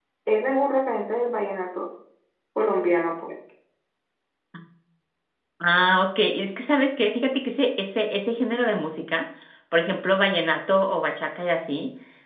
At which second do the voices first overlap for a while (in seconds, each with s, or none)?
none